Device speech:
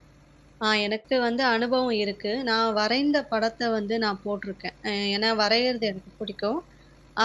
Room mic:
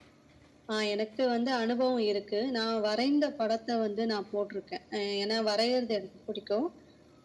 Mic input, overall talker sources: echo only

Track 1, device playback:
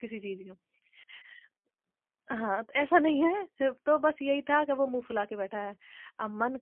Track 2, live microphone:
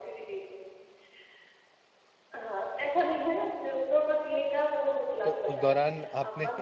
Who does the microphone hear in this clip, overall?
both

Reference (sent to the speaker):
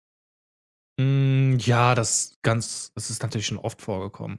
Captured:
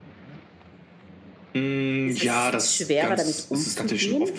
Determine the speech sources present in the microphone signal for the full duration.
both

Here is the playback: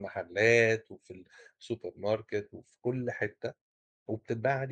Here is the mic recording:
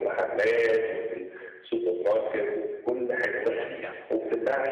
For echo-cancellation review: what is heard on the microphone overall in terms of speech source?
both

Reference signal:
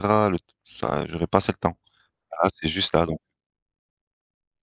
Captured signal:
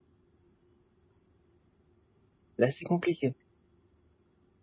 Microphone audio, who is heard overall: user only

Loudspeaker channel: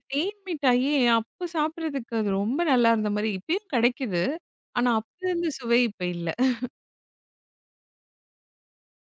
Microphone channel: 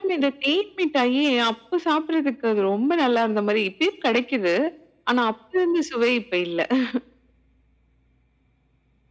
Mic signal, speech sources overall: echo only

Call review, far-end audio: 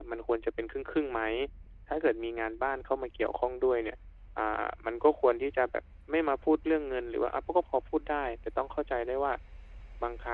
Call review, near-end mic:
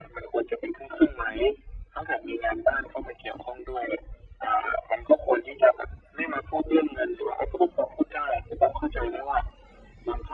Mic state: echo only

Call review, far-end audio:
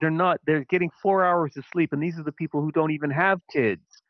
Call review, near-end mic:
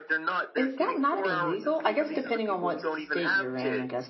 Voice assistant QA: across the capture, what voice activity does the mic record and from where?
both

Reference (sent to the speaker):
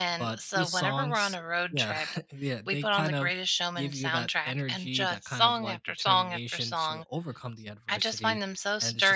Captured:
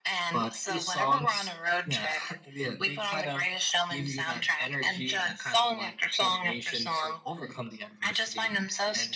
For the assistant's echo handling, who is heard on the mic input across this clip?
echo only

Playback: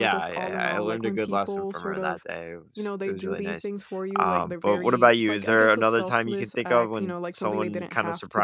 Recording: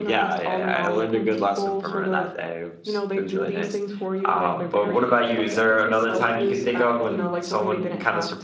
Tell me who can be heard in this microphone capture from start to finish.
echo only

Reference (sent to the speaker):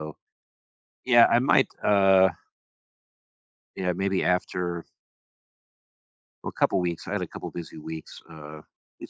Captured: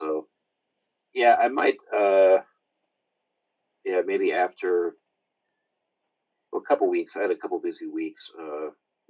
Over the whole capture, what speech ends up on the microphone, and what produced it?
echo only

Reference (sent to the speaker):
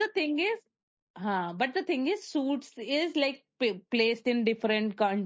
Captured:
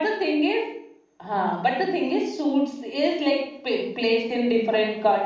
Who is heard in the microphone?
echo only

